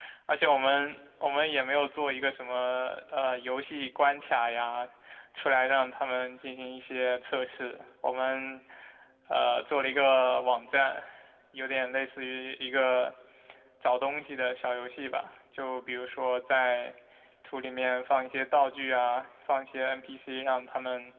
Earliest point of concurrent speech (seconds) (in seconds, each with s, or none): none